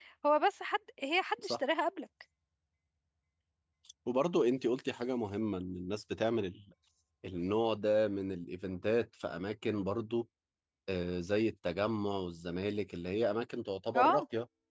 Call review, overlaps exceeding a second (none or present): none